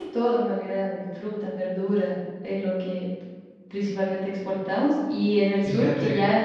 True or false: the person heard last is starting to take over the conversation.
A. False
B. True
A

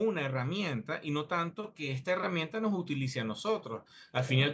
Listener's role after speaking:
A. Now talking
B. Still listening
B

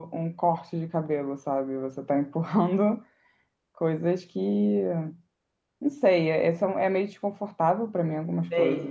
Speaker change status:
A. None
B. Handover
B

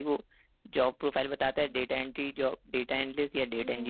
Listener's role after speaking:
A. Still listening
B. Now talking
B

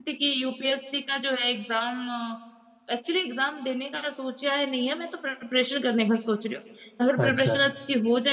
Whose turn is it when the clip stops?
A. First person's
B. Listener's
A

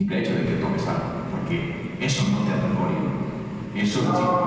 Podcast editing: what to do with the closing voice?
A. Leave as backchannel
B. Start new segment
A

